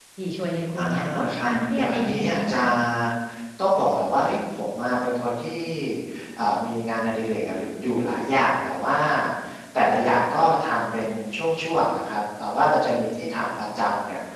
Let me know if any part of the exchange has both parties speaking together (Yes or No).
Yes